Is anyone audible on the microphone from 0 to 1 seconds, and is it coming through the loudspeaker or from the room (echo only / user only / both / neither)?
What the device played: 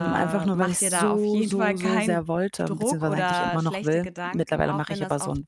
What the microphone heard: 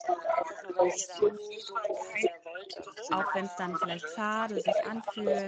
echo only